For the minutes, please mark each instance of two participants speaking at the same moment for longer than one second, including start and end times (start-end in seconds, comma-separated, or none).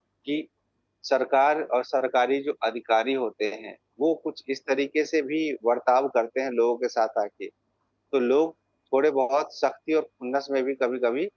none